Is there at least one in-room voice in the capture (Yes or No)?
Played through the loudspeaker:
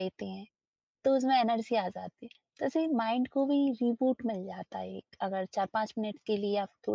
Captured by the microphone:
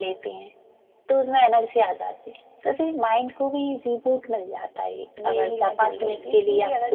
Yes